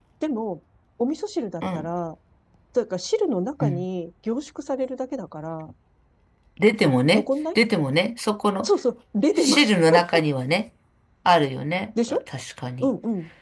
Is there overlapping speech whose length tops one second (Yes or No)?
No